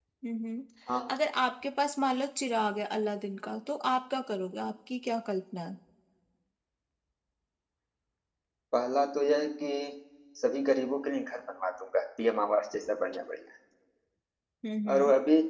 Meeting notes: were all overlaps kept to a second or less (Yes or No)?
Yes